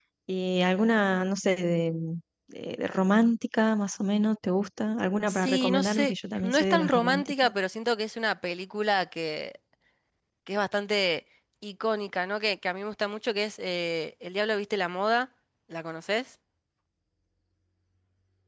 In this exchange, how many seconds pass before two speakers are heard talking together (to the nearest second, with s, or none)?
5 s